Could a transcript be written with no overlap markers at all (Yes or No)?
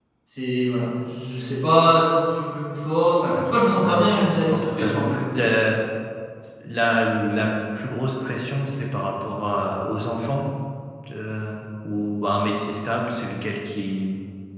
No